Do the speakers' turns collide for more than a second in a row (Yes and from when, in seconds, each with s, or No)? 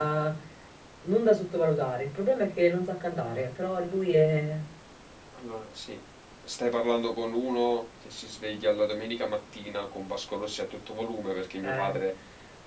No